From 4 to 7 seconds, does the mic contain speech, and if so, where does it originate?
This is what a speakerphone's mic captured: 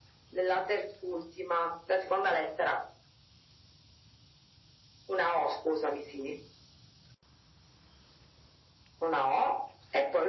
echo only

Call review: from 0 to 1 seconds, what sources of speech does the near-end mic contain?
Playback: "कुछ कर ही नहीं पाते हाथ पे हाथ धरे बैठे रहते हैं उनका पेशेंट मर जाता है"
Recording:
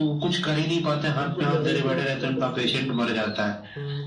echo only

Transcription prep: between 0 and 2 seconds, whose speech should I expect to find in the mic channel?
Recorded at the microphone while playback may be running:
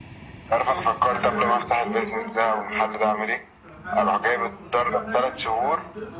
both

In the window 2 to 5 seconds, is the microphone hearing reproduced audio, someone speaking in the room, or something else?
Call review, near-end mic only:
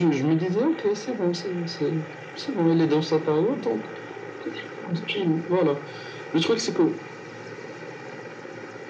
echo only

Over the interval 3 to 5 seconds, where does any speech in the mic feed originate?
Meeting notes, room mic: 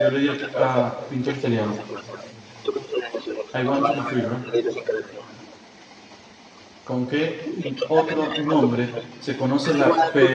both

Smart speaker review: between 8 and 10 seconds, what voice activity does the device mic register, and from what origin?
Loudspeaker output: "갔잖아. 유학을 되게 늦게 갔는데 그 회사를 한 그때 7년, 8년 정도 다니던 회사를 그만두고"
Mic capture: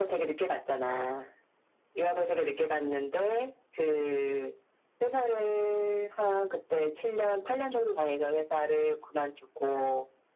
echo only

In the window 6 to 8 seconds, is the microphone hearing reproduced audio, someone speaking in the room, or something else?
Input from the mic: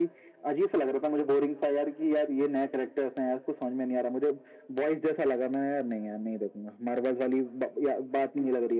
echo only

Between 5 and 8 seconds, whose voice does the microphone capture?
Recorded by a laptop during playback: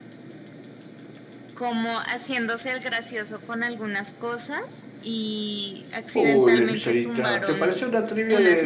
both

